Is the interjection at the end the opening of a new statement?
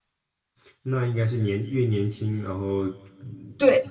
Yes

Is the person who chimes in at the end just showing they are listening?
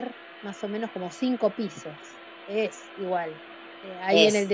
Yes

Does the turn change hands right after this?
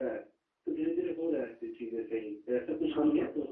No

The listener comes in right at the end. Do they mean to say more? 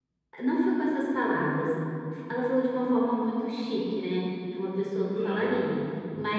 No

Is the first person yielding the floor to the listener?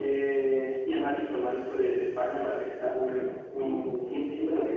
Yes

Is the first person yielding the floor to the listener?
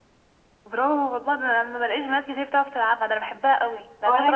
Yes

